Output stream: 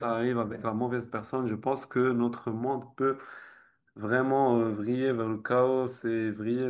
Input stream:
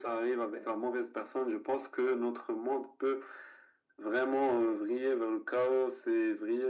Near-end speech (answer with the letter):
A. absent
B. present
A